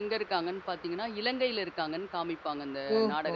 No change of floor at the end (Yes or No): No